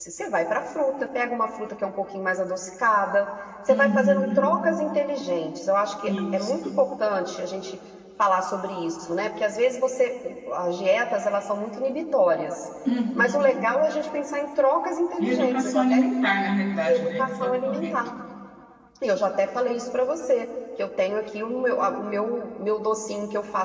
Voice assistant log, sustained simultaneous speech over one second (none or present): present